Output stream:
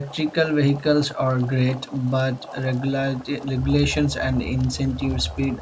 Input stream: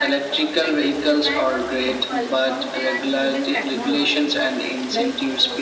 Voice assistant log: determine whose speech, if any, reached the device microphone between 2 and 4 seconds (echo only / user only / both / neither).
both